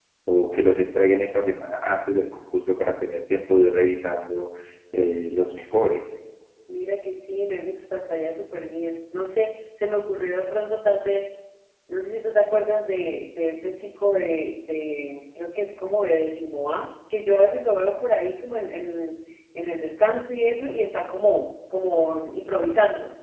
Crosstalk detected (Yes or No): No